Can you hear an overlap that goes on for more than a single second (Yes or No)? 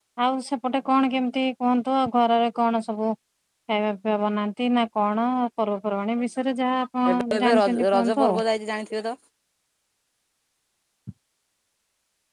Yes